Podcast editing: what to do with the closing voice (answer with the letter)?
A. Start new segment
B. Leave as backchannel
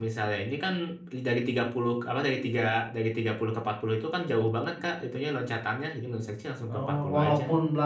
A